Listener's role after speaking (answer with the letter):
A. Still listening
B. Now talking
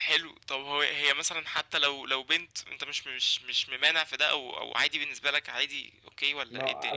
B